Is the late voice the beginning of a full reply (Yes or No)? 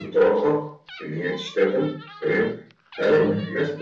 No